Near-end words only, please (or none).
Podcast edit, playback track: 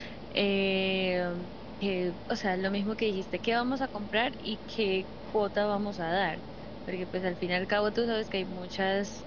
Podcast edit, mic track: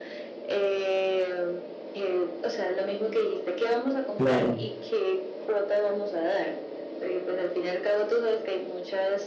Claro,